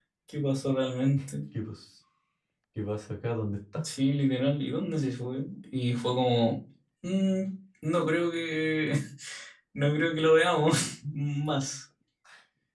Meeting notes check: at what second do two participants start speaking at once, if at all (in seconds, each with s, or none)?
none